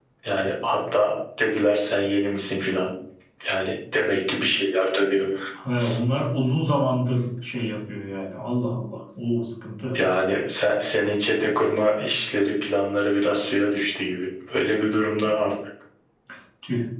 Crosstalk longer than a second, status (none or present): none